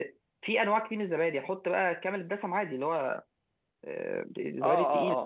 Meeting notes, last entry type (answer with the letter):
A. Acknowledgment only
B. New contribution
B